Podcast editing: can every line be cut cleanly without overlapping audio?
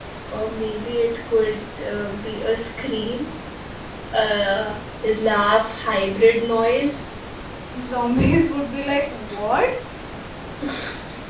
Yes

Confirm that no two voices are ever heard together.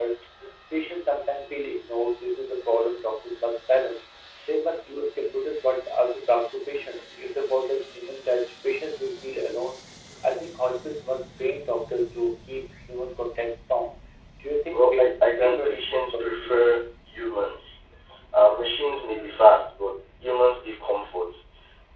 No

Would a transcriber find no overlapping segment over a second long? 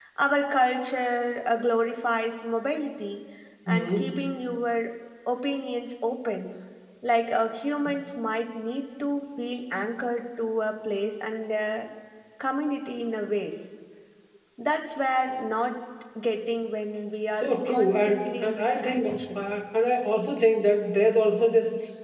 No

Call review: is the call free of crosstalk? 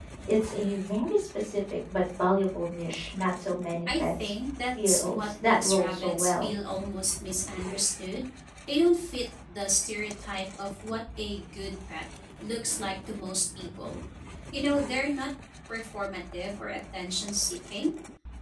No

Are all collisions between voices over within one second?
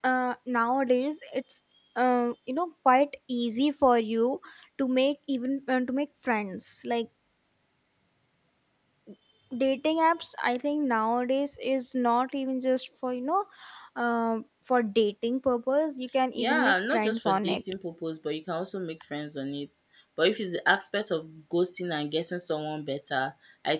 No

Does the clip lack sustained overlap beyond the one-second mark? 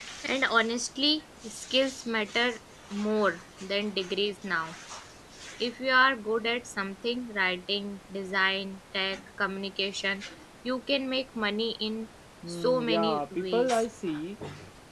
No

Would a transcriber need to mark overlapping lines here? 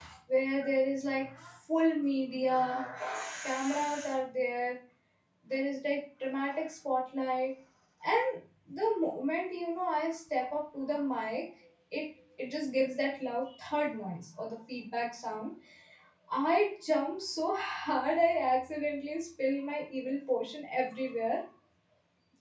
No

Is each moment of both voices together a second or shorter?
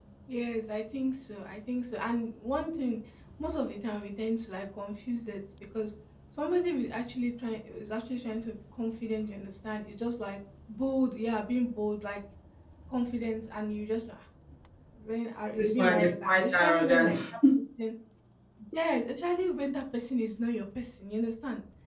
No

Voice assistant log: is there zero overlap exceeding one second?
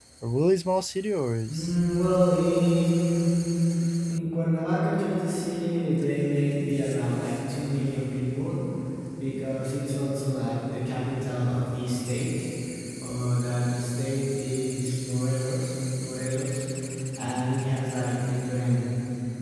Yes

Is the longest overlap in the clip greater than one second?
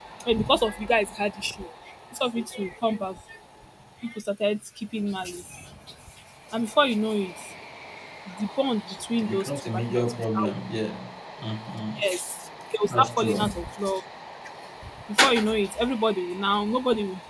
Yes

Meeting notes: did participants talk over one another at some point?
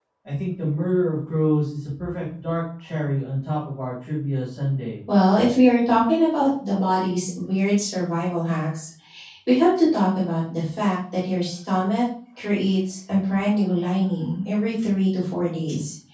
No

